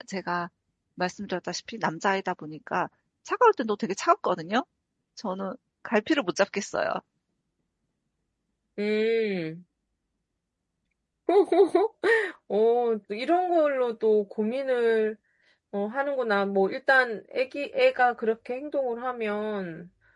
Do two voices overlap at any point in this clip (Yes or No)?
No